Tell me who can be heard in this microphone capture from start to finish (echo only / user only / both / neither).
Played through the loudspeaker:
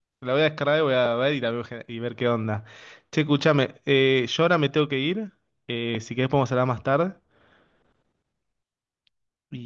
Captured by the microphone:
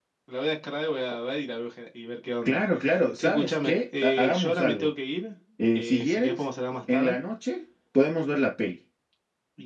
both